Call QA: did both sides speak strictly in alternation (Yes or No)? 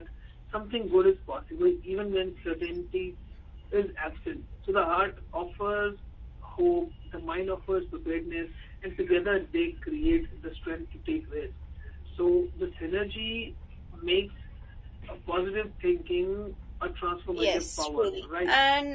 No